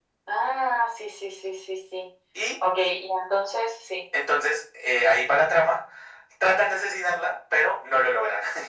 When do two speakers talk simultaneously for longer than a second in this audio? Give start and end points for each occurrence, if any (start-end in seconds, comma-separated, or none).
none